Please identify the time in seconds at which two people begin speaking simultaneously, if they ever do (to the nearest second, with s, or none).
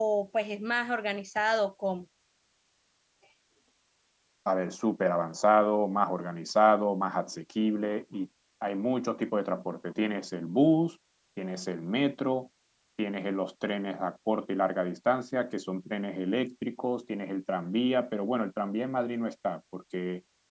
none